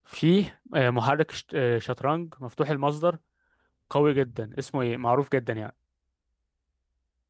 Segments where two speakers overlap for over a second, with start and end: none

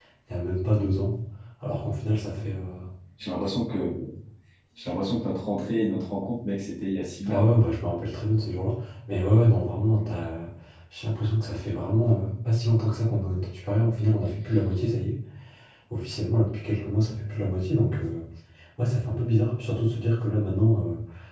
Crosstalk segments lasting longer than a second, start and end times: none

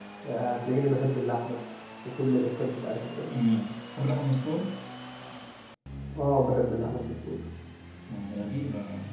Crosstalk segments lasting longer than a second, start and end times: none

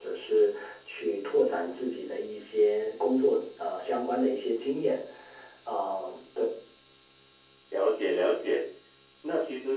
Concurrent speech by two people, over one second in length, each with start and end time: none

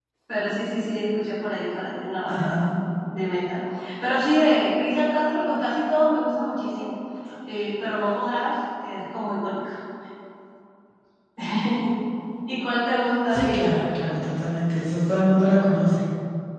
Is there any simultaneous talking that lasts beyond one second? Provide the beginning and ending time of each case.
none

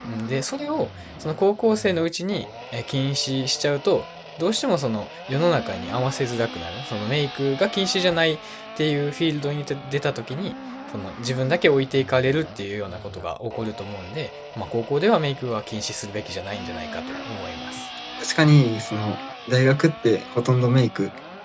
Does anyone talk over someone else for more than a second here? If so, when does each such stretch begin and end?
none

